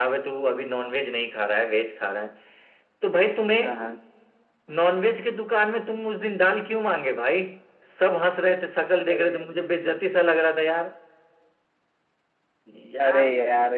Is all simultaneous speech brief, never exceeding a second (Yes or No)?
Yes